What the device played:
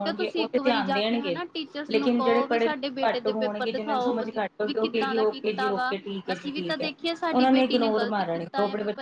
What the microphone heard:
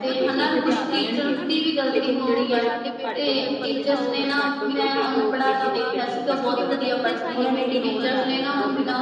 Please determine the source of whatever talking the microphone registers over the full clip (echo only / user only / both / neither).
both